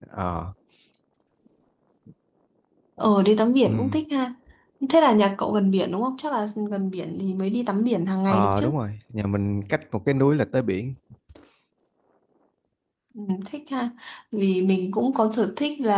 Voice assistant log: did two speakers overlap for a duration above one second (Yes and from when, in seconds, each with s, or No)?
No